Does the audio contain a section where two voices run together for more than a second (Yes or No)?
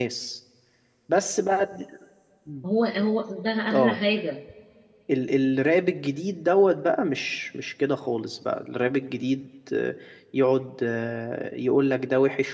No